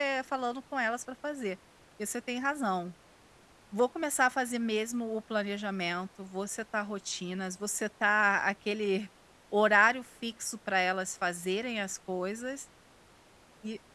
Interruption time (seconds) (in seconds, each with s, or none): none